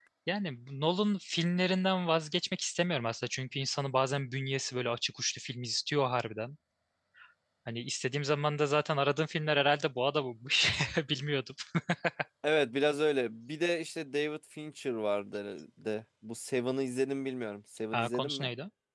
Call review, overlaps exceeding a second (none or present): none